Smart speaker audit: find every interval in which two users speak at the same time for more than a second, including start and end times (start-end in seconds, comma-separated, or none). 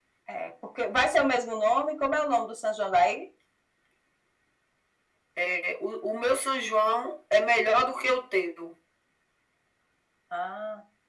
none